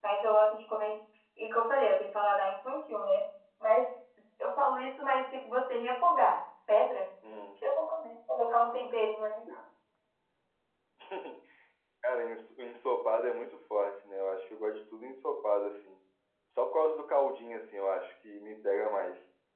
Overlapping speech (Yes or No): No